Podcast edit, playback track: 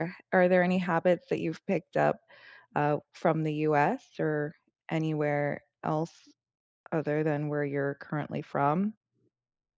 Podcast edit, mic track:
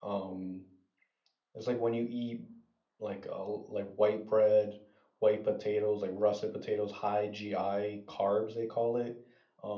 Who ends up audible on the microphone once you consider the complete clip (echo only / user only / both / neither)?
user only